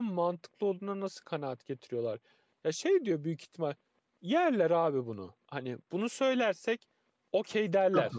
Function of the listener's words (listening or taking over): taking over